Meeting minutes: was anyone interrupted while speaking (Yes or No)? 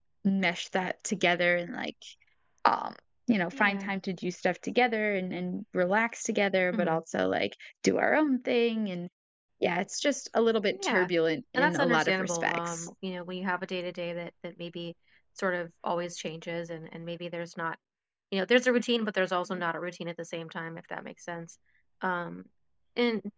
Yes